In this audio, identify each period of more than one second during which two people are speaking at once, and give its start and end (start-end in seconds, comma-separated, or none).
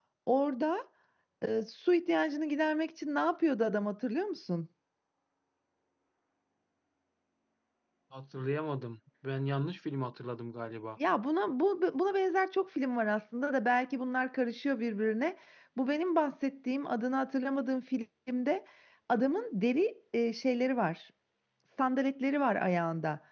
none